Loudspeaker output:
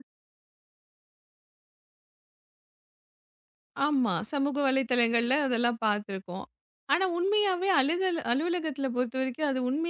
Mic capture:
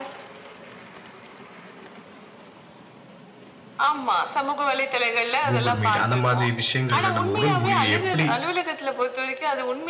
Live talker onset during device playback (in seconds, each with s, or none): 5.5 s